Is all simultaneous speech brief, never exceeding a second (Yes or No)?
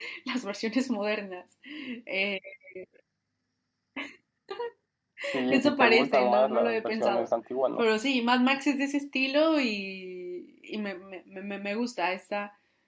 No